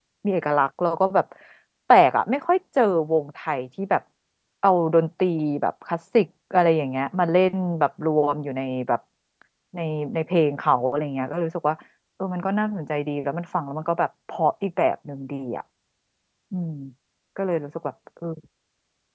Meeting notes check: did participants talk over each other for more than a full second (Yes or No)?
No